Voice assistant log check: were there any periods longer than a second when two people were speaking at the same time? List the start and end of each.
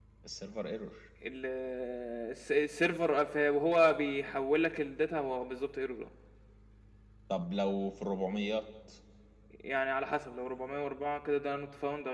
none

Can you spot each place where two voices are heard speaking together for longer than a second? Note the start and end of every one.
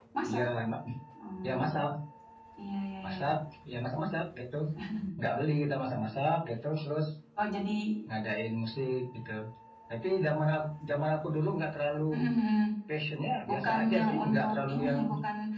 13.5-15.0

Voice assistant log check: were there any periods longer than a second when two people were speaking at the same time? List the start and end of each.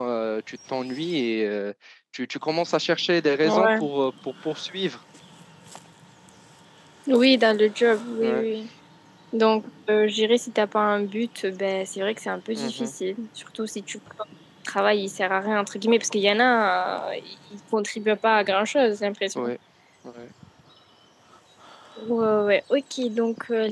none

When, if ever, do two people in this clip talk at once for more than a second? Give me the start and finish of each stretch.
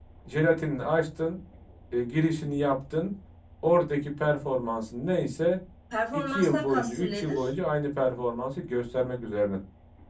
6.1-7.5

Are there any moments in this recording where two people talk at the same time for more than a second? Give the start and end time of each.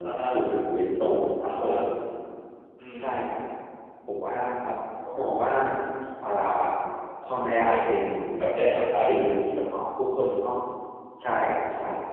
none

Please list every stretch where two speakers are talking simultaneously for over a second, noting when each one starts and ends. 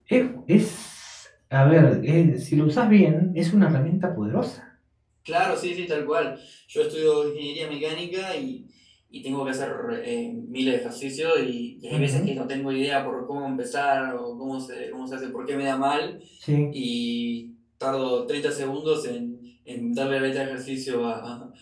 none

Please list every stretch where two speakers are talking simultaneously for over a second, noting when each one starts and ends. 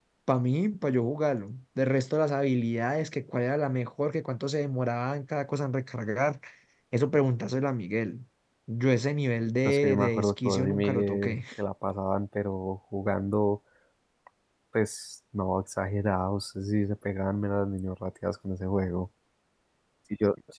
9.7-11.4

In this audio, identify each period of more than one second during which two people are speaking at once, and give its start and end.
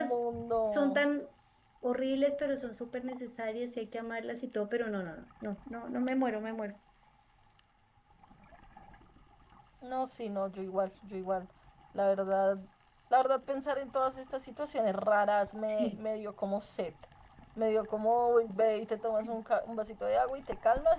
none

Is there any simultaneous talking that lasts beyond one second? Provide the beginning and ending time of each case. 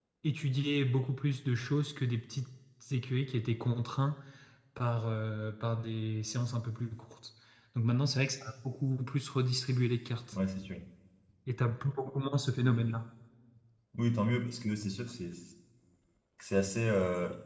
none

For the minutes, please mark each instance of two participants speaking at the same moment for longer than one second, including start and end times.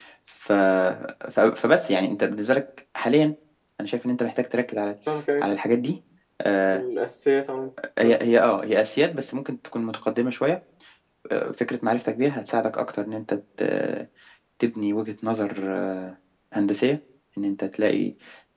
none

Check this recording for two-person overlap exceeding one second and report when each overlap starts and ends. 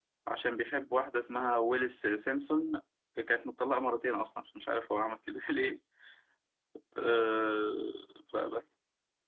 none

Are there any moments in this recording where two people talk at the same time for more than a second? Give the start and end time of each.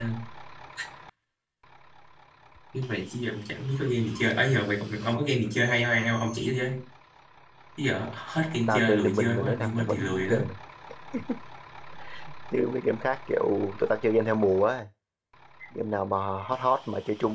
8.7-10.4

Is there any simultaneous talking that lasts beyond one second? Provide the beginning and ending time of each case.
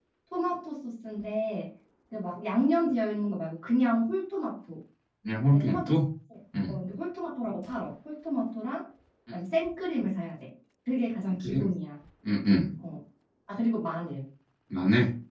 none

